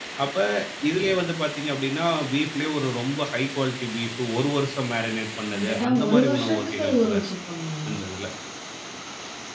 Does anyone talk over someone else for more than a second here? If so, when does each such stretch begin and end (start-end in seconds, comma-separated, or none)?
5.6-7.2